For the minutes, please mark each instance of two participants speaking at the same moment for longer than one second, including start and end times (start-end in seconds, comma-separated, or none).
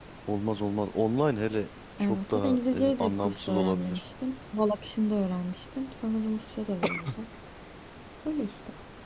2.0-4.0